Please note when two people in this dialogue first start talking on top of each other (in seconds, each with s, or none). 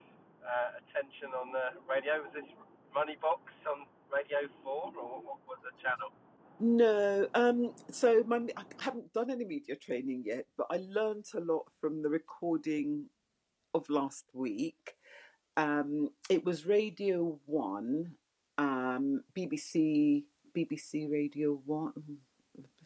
none